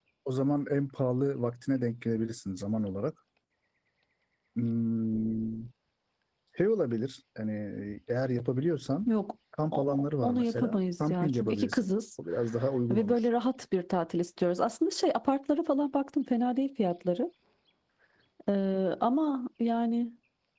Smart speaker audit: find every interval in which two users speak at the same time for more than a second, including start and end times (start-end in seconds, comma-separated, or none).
9.7-11.9